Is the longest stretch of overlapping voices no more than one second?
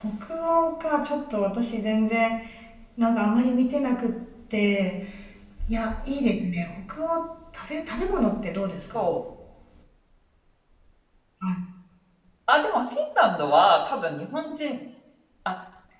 Yes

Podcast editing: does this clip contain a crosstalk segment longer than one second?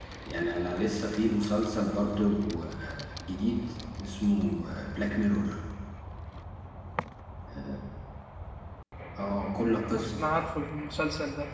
No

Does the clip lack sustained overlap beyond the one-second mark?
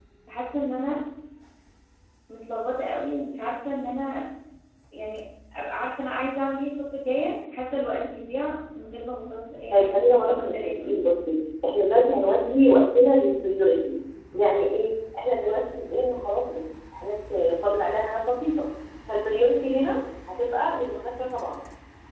No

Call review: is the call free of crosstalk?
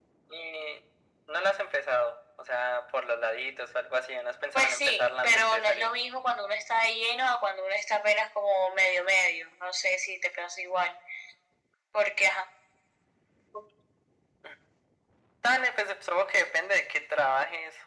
No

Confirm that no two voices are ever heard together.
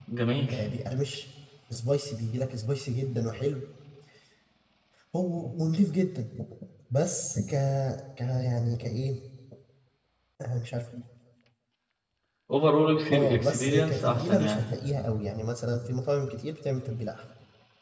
No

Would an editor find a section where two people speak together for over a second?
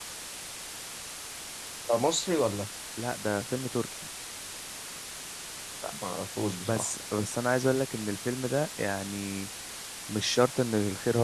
No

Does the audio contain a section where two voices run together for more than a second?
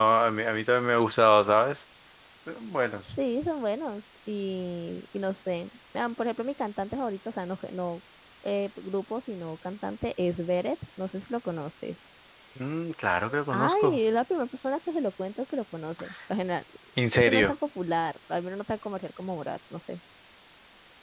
No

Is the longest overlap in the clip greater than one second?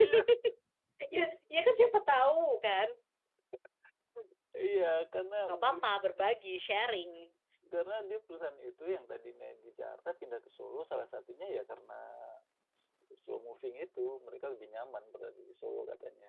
No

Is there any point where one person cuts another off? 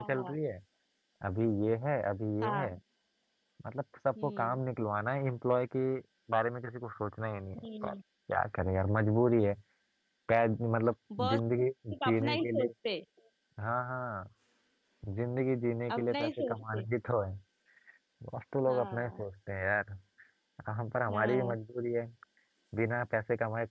Yes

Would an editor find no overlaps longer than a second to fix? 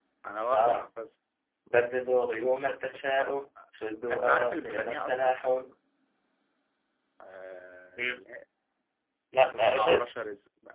No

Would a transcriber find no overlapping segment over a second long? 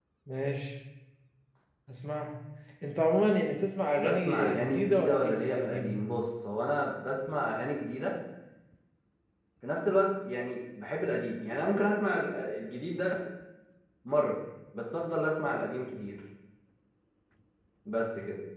No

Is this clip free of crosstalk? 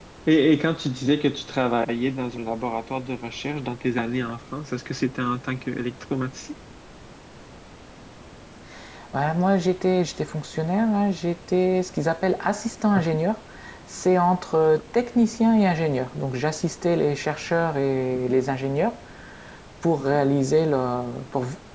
Yes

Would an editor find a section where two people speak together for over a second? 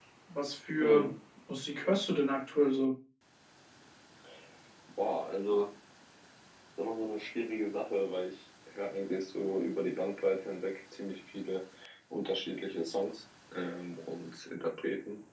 No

